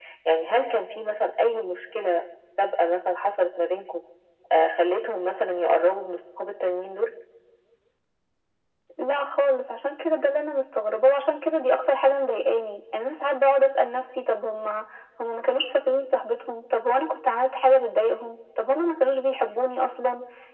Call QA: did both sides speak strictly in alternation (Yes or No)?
Yes